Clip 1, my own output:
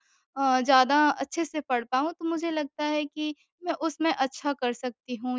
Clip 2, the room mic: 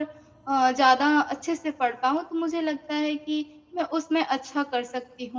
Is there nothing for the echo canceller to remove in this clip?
No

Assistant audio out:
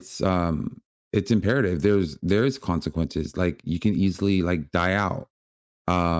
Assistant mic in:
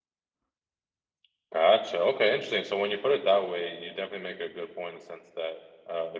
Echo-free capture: Yes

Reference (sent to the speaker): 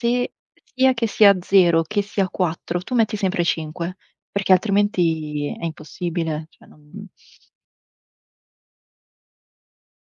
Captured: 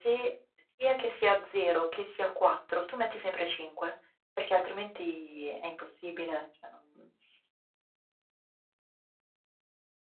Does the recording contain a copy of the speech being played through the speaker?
Yes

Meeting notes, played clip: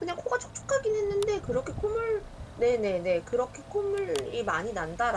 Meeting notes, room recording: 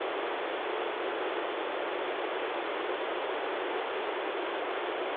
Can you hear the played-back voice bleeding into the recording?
No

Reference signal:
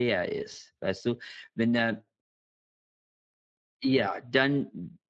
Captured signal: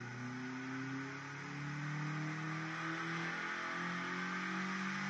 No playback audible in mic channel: Yes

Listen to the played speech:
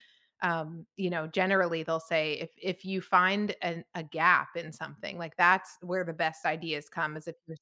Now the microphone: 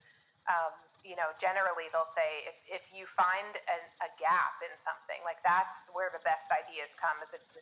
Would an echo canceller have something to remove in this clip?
Yes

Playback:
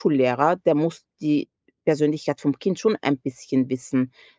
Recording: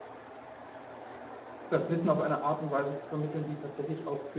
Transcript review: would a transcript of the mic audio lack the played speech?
Yes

